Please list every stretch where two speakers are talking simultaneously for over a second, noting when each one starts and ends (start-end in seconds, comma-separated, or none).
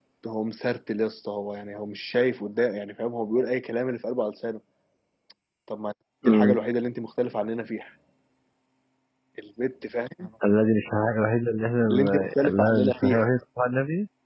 11.9-13.3